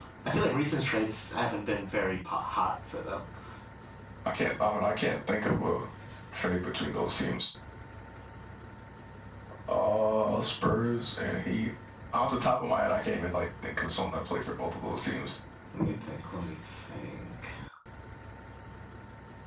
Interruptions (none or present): none